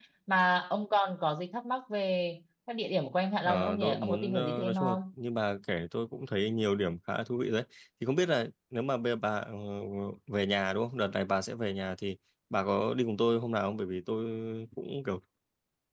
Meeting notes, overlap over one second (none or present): present